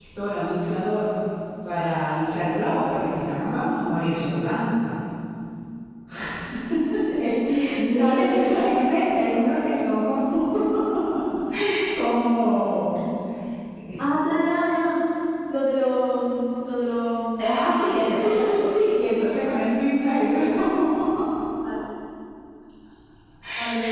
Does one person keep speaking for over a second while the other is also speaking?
Yes, from 7.5 s

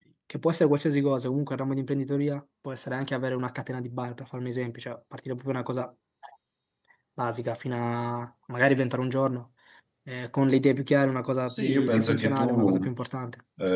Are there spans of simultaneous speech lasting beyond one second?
Yes, from 11.4 s

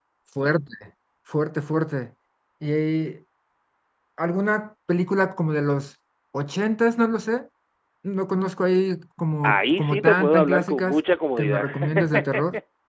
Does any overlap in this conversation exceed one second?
Yes, from 9.4 s

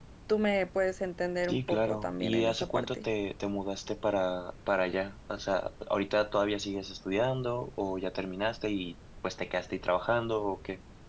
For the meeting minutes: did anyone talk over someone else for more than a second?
Yes, from 1.4 s

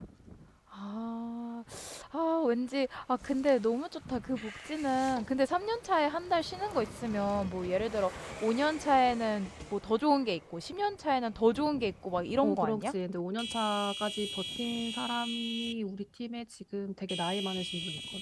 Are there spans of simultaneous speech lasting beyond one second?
No

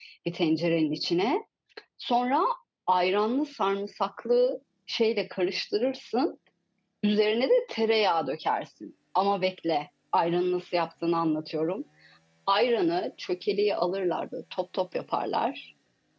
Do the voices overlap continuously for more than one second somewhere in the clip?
No

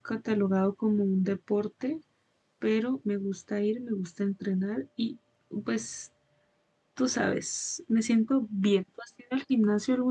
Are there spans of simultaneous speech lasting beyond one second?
No

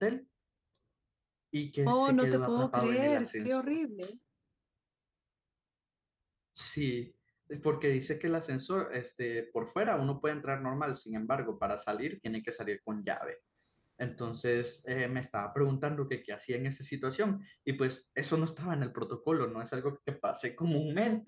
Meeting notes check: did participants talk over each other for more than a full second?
Yes, from 1.9 s

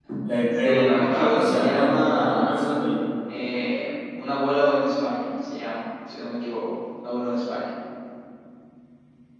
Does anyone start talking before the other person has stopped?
Yes, from 0.6 s

